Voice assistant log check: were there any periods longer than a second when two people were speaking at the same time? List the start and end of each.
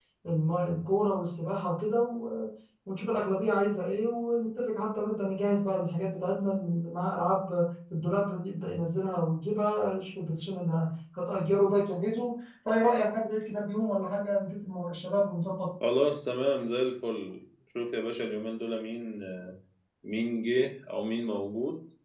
none

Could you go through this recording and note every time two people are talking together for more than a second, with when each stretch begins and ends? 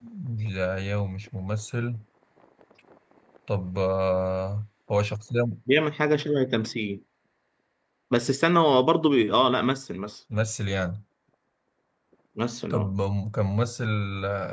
none

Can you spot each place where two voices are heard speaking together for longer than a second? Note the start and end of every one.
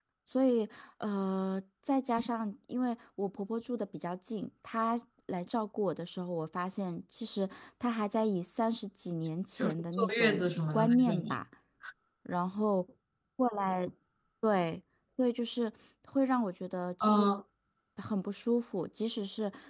9.5-11.4

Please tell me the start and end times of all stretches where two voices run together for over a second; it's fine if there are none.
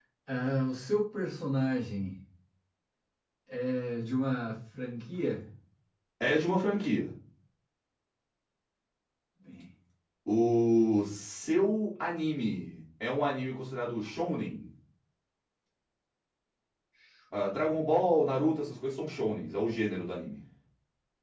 none

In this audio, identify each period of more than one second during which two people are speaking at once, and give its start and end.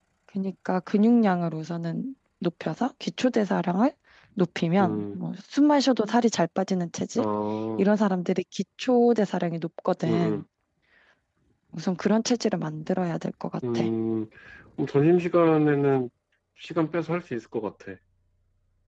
none

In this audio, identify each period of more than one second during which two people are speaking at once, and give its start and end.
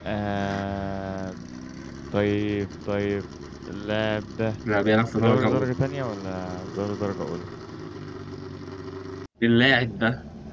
none

